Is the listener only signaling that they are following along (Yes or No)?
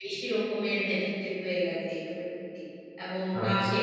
Yes